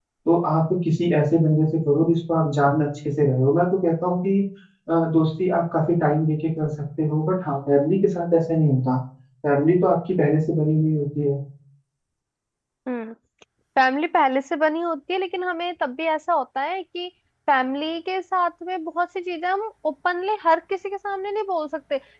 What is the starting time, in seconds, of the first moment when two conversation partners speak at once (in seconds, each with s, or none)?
none